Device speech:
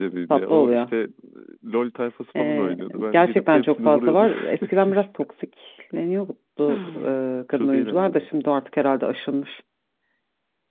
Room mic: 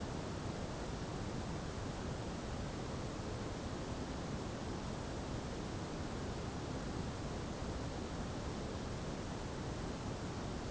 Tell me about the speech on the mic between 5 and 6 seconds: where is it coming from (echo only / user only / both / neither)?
neither